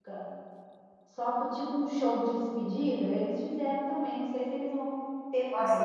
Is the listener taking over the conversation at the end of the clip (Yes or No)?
Yes